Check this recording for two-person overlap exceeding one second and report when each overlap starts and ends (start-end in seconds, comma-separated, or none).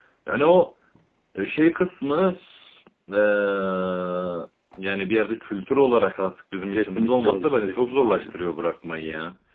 6.7-8.3